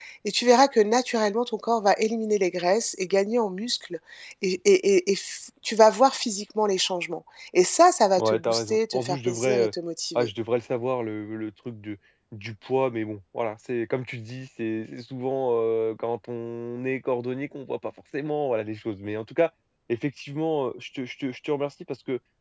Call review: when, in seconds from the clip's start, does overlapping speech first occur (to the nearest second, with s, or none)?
8 s